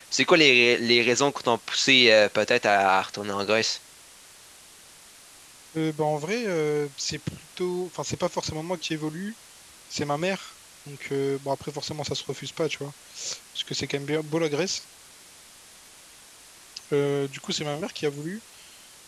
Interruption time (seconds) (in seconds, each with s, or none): none